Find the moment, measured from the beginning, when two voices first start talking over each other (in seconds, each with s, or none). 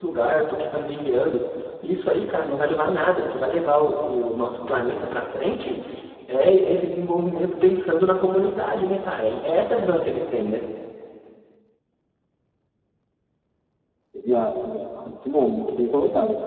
none